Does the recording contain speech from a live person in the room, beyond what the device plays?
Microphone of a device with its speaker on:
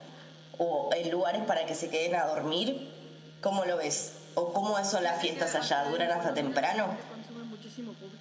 Yes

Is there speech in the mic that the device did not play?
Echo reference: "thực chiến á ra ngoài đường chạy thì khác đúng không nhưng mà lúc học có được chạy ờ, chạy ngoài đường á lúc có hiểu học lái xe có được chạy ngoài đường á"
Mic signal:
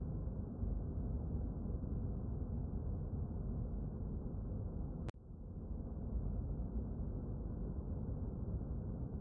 No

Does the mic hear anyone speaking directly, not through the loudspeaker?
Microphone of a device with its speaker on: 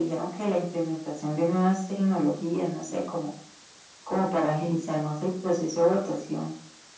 No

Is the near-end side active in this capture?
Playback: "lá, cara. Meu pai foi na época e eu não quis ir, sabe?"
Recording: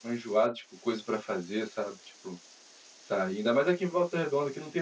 Yes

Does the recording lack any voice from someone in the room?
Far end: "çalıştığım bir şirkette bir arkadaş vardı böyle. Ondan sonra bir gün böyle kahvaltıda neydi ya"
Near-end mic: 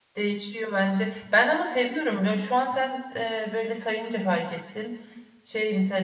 No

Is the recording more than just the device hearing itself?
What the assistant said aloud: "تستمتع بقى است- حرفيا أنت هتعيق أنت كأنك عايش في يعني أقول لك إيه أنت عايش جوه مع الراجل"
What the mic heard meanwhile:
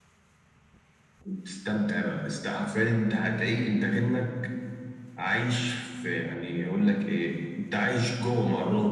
No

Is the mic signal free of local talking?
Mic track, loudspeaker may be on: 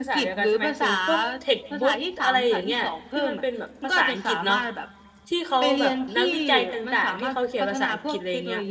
No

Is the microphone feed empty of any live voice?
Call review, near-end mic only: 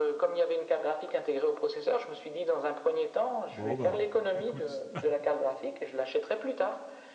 No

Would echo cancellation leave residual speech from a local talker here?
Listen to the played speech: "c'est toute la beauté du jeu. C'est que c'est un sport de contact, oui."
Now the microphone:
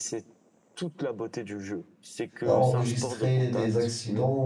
Yes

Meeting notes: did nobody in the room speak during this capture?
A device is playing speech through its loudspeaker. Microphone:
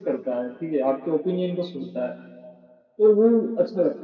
Yes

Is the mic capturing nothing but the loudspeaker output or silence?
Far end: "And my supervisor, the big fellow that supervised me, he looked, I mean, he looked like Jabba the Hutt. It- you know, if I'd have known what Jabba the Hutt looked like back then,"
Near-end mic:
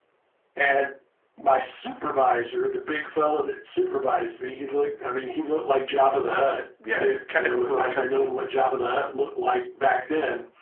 No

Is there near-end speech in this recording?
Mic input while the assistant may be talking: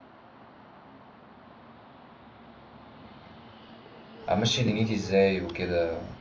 Yes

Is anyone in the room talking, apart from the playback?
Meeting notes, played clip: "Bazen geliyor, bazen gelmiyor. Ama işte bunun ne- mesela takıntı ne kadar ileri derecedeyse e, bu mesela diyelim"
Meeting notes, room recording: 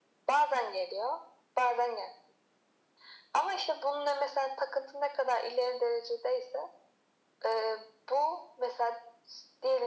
No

